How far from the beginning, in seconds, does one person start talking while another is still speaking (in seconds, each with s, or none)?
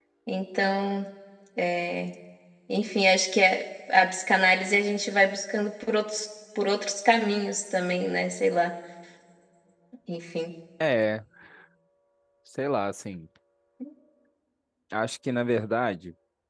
none